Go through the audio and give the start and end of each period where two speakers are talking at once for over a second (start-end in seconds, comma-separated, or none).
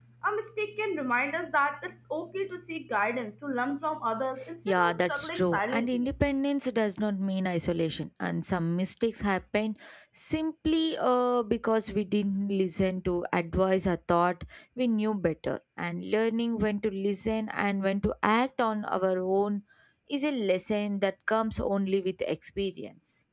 4.7-6.1